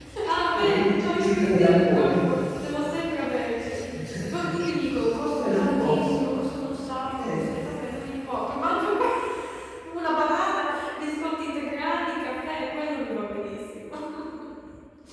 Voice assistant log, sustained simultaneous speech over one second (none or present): present